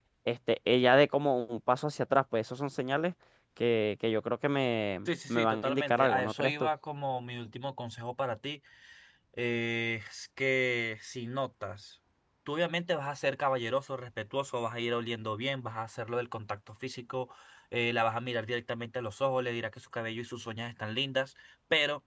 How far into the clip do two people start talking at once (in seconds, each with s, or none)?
5.1 s